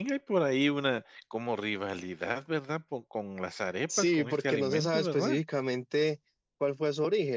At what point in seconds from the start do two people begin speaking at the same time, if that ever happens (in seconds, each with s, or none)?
3.9 s